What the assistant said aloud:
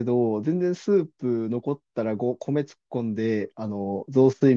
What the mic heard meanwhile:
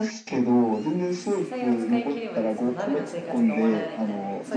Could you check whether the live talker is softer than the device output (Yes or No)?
Yes